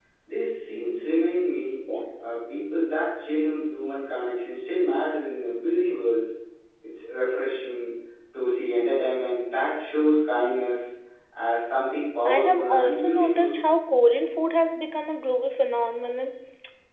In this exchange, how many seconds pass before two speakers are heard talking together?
12.2 s

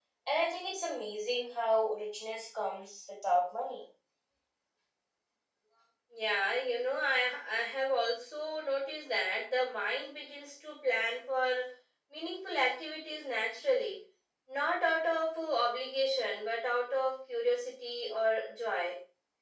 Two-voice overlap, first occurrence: none

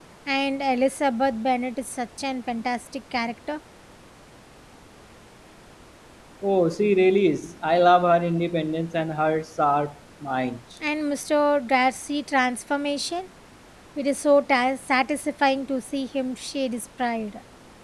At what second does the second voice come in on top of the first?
none

